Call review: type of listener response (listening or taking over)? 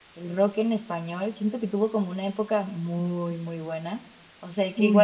listening